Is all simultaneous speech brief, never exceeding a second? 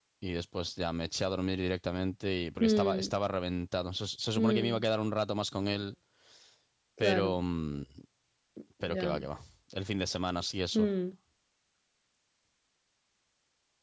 Yes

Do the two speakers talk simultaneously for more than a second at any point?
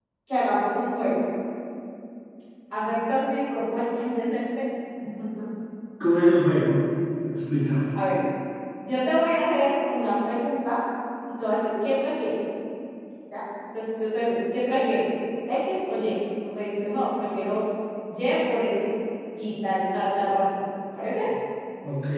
No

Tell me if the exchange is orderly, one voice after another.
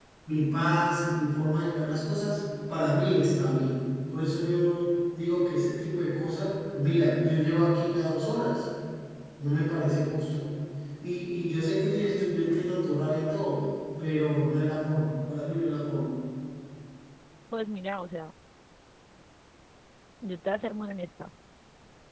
Yes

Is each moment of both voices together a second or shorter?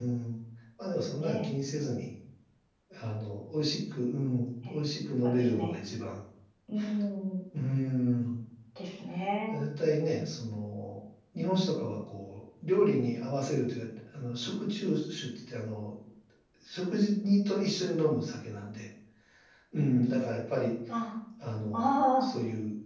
Yes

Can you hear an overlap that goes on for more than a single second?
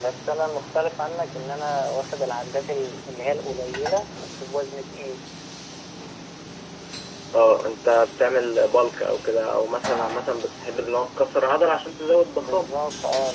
No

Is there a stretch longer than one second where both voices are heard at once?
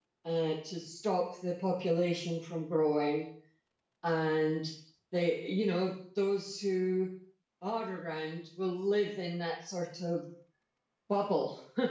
No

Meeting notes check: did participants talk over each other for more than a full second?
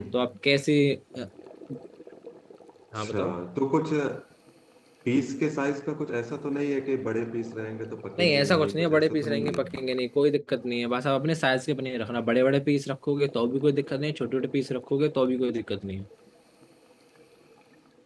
Yes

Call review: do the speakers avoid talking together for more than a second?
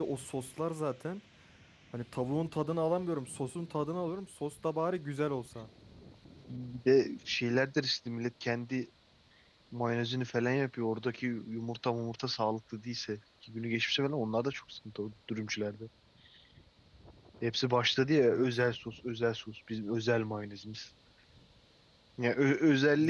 Yes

